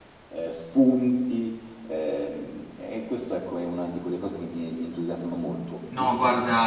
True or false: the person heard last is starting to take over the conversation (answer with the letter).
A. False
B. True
B